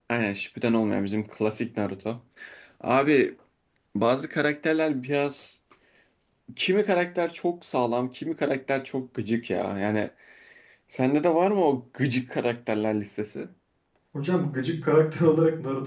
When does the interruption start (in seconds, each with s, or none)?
none